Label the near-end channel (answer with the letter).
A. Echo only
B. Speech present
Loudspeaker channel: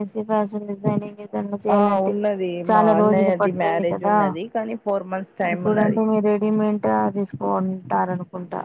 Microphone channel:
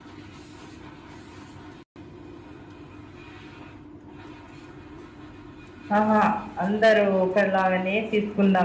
B